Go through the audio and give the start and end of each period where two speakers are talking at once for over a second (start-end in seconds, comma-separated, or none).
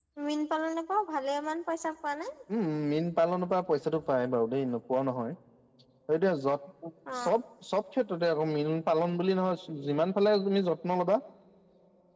none